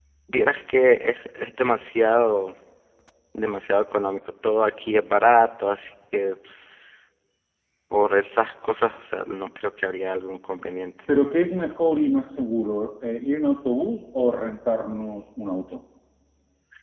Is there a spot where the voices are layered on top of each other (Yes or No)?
No